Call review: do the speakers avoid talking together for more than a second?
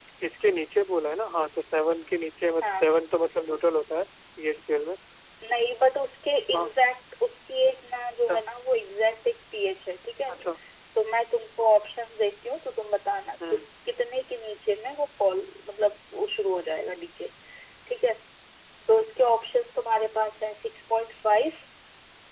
Yes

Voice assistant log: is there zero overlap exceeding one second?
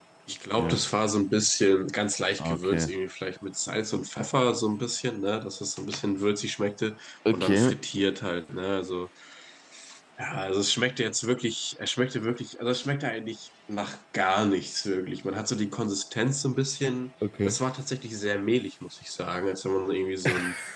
Yes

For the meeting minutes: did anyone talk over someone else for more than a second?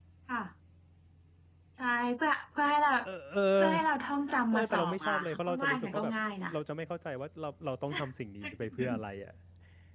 Yes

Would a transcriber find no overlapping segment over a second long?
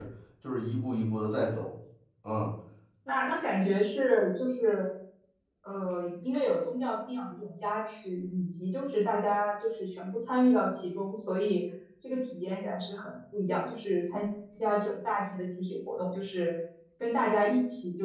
Yes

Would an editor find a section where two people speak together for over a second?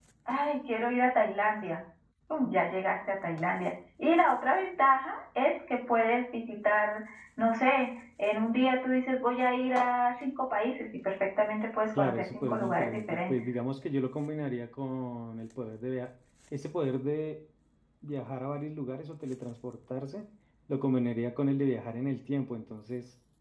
Yes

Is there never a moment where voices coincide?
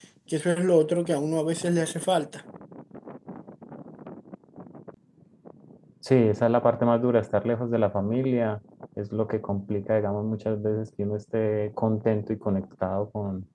Yes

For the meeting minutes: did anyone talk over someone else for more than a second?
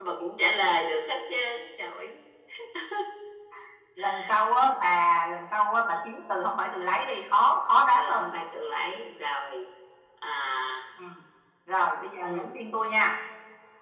No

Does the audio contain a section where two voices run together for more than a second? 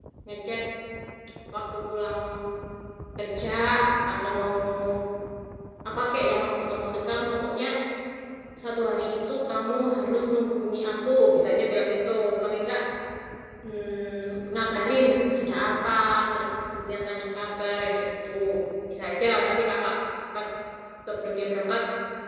No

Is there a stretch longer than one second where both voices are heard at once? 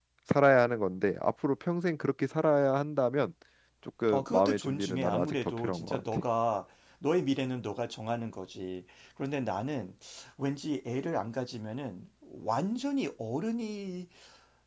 Yes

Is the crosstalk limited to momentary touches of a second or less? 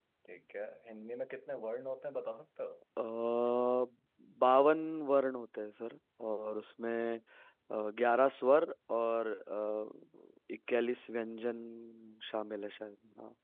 Yes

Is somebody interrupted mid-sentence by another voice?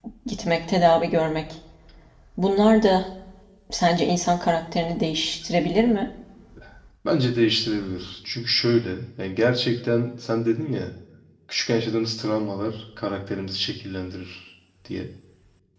No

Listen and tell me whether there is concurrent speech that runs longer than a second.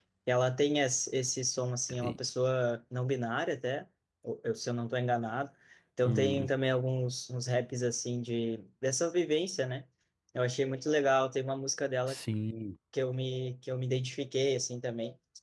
No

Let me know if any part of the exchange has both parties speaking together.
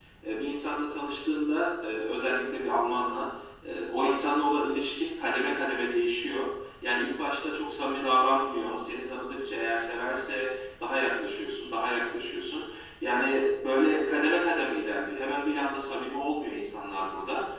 No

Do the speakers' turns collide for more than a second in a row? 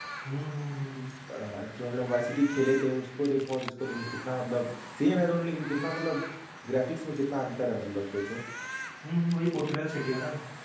No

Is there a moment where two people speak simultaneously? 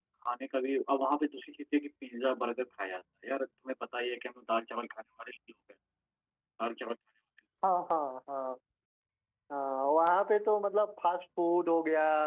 No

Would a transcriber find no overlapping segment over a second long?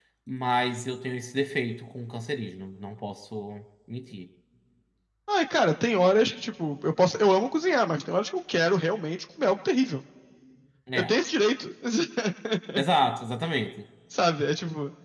Yes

